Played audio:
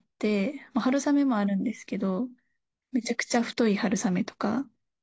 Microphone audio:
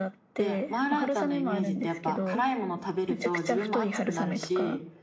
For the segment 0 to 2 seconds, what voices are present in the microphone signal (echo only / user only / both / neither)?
both